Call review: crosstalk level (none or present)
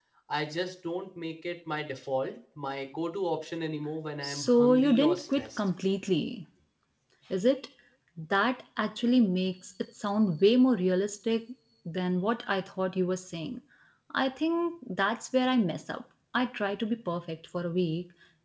present